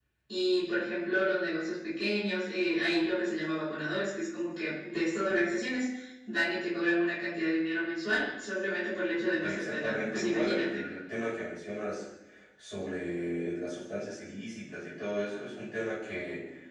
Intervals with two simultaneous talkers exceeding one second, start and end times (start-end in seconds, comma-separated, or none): 9.4-10.8